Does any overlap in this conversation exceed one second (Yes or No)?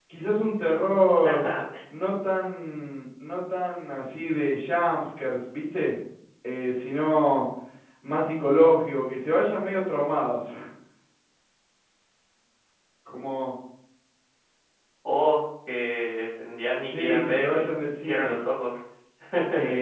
Yes